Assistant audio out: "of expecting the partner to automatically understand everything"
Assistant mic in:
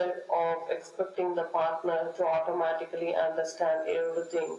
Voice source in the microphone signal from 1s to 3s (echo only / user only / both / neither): echo only